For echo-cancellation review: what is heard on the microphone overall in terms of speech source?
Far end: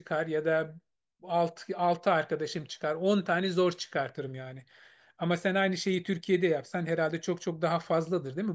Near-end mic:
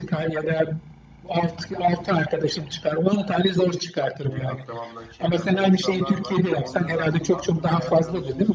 both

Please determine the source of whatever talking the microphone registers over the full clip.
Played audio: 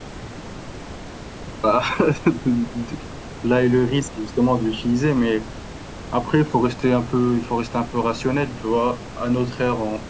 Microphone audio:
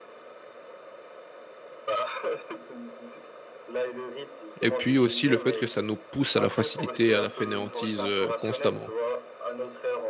both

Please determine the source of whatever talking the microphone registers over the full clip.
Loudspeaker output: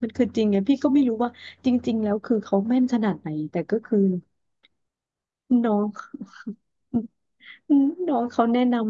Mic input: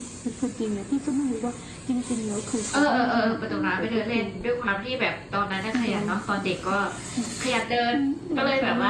both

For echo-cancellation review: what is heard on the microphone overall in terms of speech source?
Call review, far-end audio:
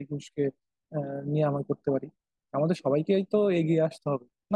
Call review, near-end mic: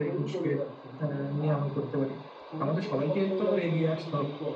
both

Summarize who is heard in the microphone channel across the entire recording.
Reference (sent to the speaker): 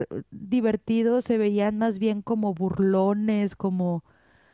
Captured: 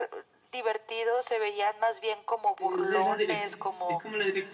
both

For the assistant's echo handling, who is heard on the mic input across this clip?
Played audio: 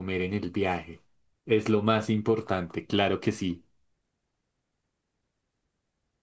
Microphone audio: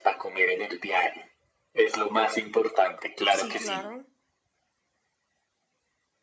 both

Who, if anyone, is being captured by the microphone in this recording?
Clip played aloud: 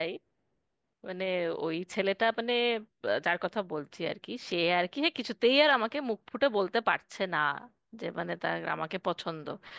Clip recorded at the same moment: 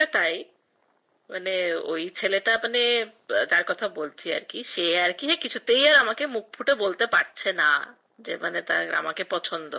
echo only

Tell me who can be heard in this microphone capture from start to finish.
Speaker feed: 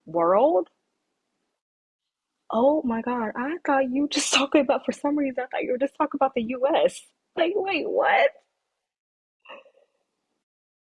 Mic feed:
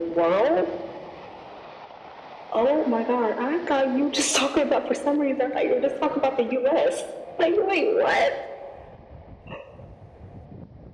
echo only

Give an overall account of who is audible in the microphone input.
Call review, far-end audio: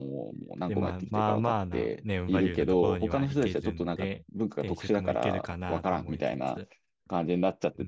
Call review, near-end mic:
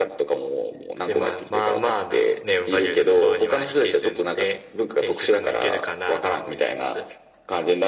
echo only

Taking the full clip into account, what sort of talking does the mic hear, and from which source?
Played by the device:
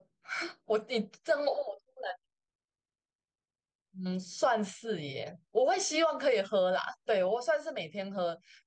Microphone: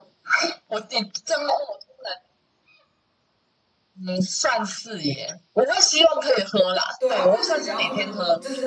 both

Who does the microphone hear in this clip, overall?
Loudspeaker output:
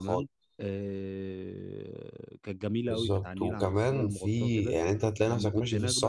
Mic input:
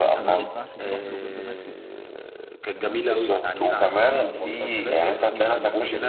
both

